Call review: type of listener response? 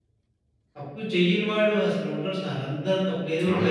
taking over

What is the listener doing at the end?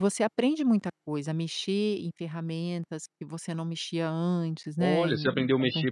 taking over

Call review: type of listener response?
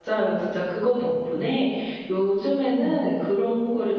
listening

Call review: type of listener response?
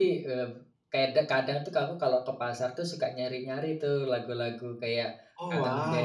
listening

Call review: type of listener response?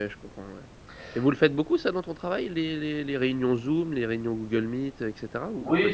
taking over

